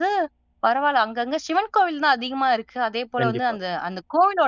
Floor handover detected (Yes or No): No